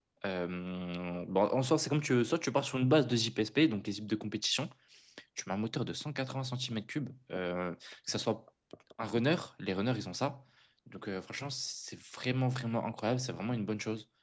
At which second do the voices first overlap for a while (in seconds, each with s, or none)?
none